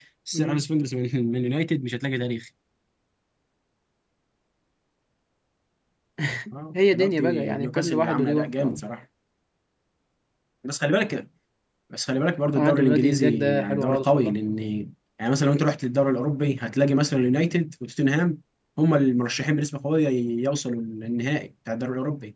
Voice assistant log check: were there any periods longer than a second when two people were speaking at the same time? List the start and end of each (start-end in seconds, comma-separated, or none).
6.9-8.8, 12.6-14.3